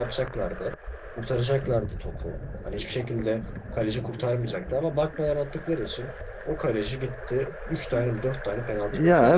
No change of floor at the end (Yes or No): No